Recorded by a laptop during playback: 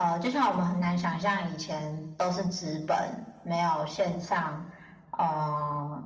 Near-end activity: none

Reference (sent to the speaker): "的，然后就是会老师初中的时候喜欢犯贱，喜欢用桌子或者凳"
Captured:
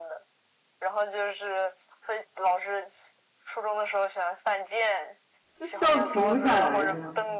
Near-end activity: present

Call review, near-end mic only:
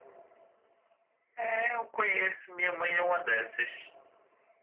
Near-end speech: none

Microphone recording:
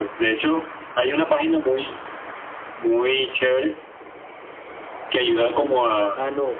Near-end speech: present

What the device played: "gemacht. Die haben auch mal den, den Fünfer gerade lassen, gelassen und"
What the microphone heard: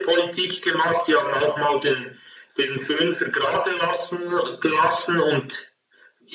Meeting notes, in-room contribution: none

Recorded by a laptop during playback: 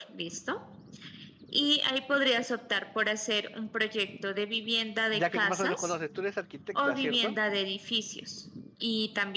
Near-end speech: present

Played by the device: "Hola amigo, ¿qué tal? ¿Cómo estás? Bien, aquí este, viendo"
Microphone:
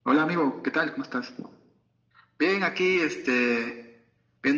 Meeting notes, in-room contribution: none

